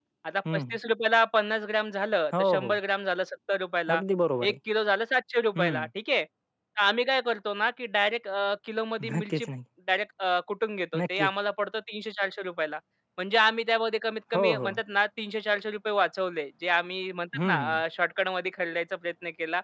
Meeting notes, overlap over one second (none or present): none